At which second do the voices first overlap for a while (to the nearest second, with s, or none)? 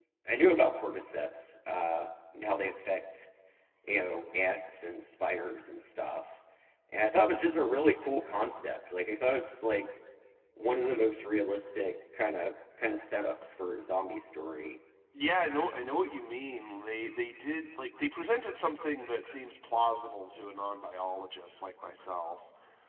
none